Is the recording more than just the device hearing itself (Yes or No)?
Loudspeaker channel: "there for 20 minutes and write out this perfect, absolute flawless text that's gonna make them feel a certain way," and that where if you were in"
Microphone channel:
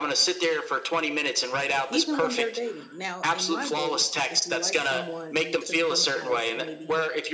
Yes